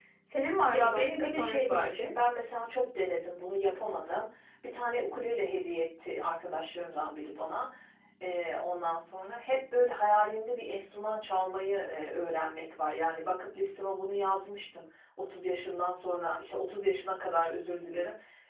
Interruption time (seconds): 1 s

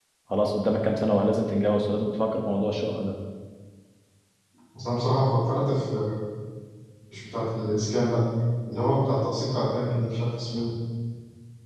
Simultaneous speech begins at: none

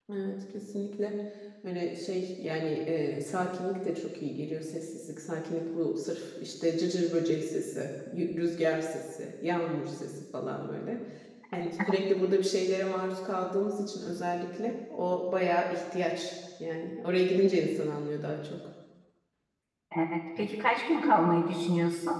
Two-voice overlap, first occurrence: none

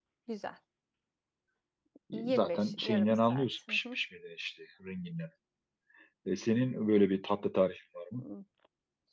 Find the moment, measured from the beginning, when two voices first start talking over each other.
2 s

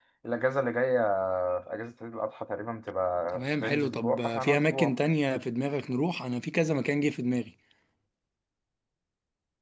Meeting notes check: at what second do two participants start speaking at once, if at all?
3 s

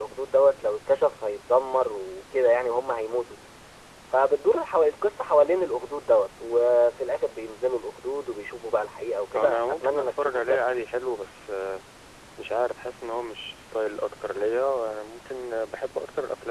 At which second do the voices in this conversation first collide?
9 s

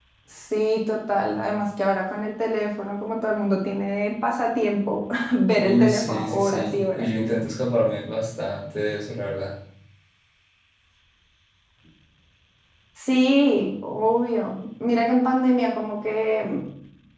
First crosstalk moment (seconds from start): 6 s

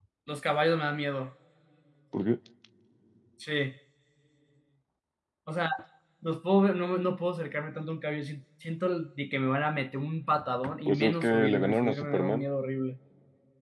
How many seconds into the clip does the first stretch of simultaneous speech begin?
11 s

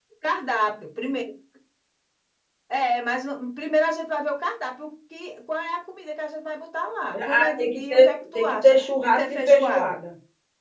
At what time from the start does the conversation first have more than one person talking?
7 s

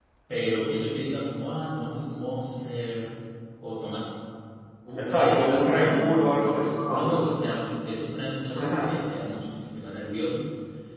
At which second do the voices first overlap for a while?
5 s

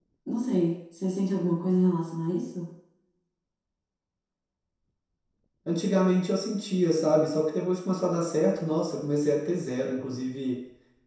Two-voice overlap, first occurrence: none

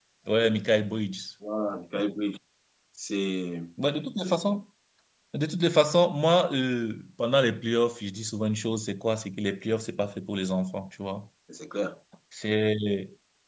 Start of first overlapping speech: none

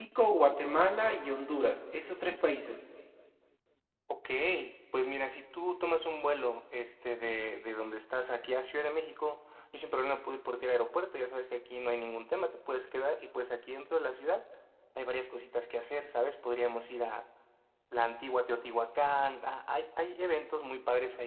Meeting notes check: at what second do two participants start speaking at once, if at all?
none

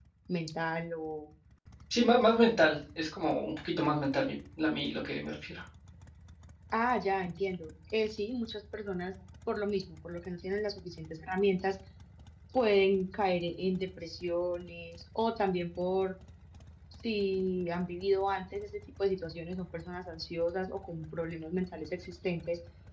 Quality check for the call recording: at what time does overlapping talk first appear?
none

